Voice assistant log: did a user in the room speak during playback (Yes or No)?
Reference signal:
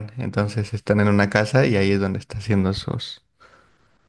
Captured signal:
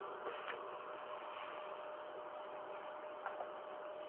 No